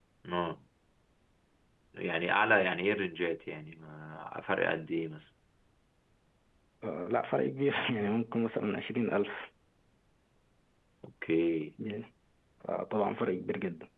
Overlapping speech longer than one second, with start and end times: none

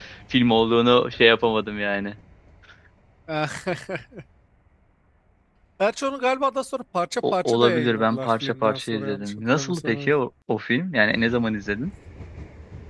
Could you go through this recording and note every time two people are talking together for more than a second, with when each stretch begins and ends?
7.3-10.1

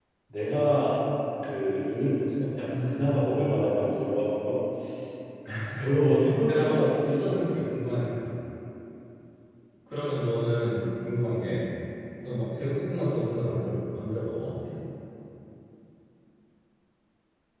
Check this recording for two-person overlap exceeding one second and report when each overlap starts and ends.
6.5-7.7

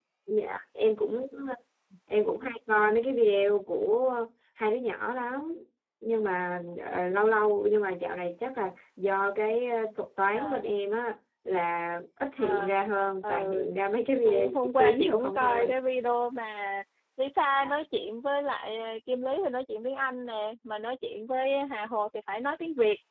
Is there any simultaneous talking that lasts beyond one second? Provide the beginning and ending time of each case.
14.2-15.8

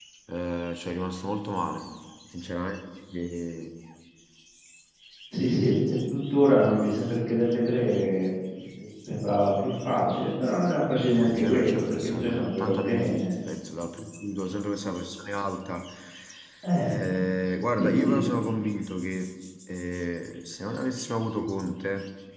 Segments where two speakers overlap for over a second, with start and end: 11.2-13.3

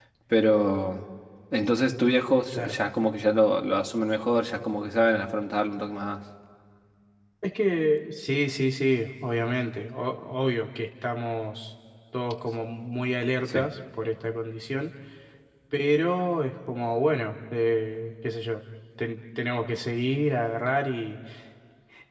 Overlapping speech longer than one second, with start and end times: none

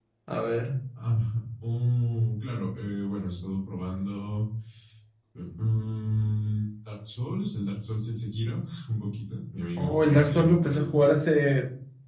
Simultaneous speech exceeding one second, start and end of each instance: 9.8-11.1

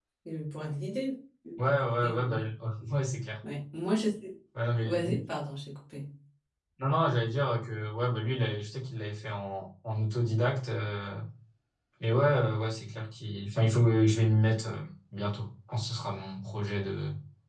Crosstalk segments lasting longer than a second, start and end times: none

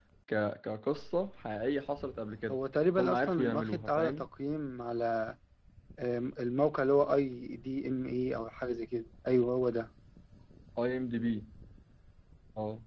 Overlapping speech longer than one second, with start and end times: 3.0-4.2

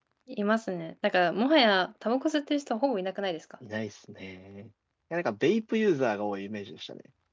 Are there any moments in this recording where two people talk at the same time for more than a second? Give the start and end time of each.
none

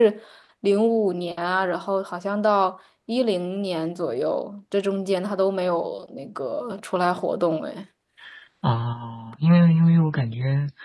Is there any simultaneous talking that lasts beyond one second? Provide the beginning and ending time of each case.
none

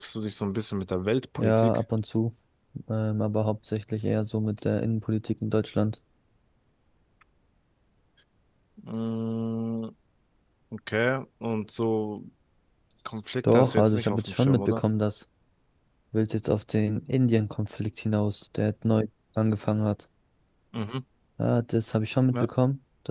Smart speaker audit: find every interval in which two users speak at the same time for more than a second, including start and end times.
13.5-14.8

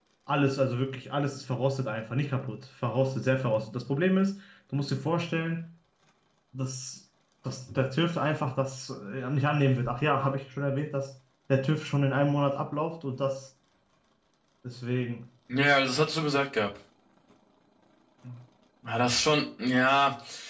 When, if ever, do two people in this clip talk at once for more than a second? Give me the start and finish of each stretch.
none

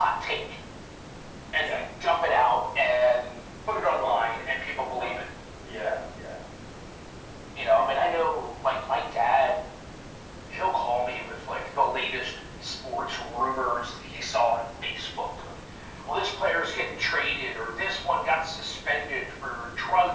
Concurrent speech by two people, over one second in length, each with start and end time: 3.8-5.3

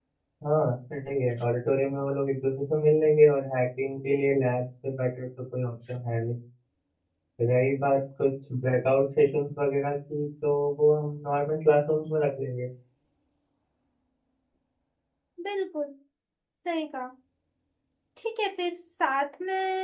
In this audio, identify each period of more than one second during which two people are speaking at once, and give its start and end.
none

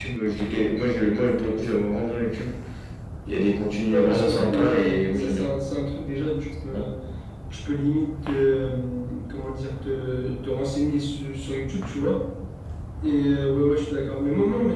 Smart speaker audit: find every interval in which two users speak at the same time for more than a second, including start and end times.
3.9-5.5

